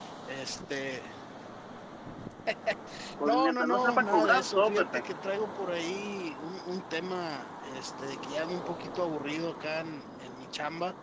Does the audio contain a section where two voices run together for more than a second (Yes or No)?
Yes